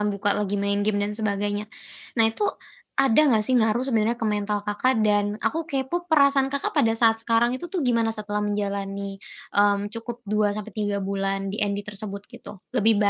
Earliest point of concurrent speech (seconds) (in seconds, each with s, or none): none